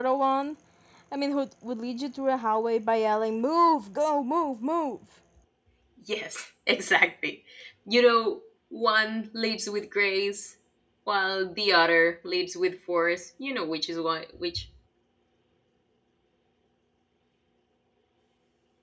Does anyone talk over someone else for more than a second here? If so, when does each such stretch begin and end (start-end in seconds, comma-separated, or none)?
none